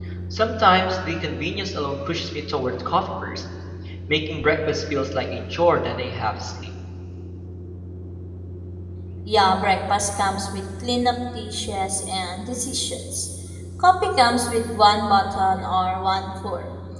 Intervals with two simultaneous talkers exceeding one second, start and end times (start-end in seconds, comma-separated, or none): none